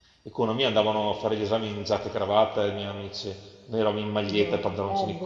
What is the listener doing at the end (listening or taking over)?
taking over